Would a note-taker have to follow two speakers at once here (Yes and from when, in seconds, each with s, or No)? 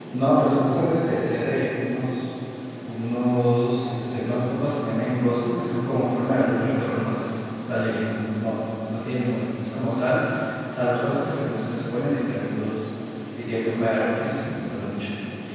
No